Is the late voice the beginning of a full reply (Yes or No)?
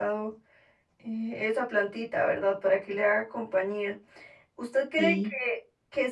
No